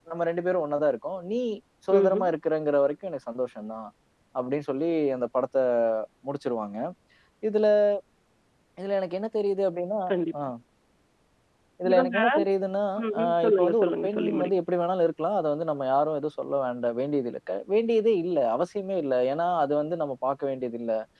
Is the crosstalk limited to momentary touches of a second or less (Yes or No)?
No